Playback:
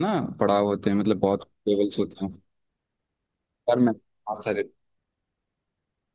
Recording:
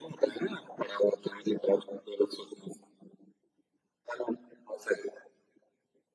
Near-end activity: none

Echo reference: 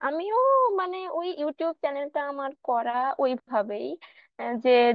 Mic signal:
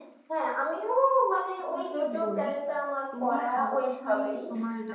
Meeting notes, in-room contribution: present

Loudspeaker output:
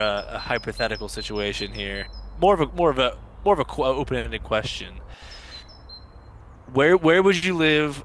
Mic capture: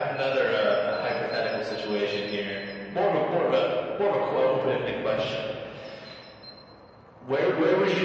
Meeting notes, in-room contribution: none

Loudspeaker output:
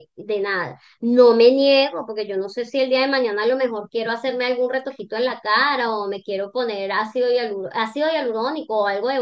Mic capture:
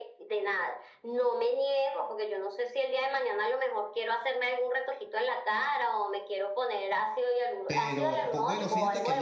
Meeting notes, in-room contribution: present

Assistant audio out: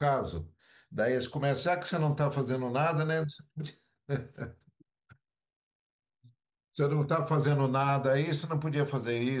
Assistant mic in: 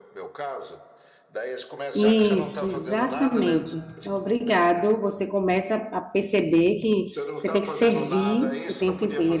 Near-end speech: present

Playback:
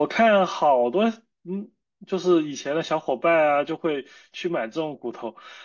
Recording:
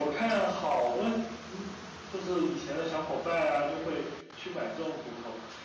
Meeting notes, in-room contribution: none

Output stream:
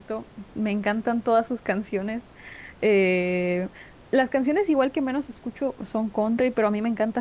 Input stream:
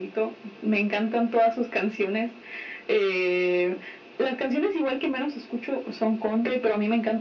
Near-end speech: none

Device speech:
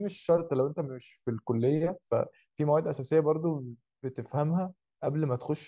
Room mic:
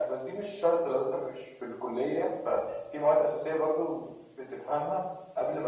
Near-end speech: none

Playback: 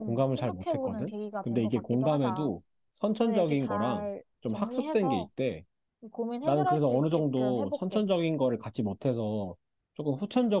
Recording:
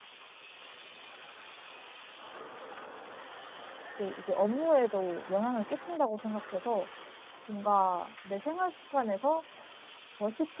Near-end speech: present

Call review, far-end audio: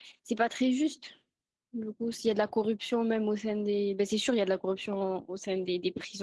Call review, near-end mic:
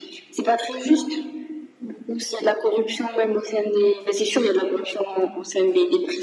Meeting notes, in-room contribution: none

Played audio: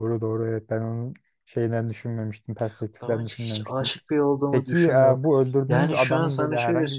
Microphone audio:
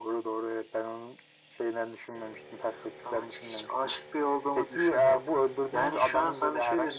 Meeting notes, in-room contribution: none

